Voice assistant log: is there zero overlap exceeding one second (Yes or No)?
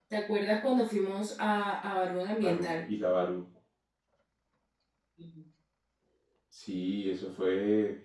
Yes